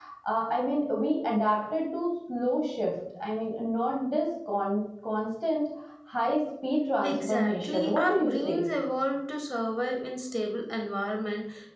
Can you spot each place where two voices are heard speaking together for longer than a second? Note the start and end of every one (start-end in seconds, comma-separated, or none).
7.0-8.7